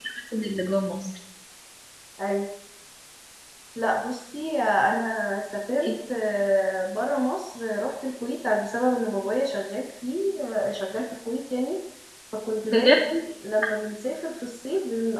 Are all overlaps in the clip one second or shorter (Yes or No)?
Yes